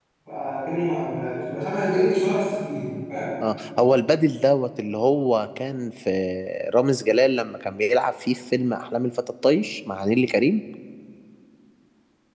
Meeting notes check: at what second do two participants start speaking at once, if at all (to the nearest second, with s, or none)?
none